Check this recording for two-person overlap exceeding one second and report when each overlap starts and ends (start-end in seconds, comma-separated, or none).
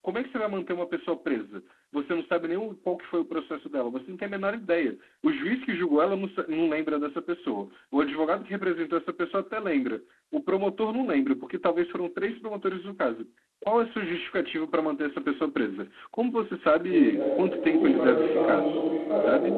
16.8-18.7